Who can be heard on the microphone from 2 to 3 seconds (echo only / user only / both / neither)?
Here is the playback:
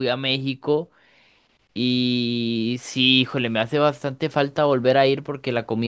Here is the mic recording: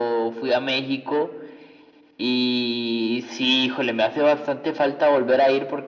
echo only